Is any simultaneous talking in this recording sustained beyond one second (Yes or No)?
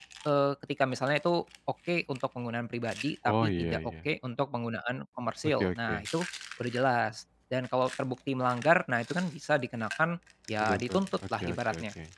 Yes